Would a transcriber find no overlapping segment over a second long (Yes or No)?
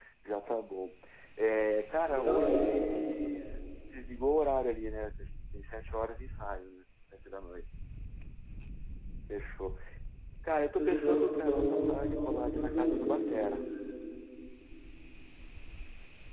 No